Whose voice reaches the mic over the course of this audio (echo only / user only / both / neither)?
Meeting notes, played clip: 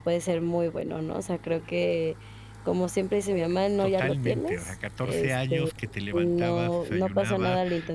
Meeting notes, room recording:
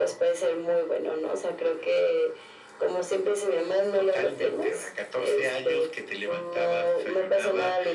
echo only